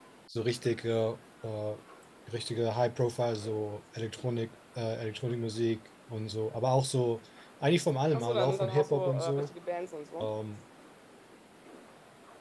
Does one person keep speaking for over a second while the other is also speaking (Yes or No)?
Yes